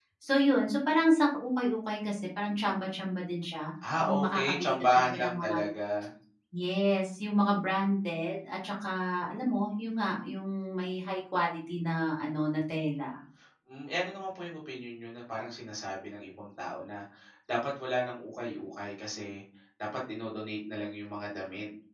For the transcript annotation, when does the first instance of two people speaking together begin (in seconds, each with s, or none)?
3.8 s